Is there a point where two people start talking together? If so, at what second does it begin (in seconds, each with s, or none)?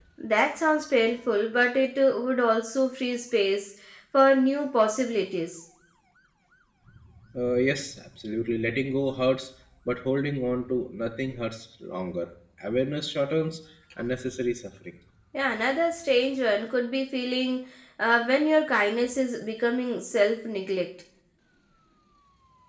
none